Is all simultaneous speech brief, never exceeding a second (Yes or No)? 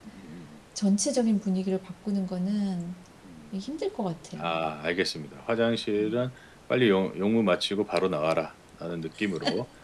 Yes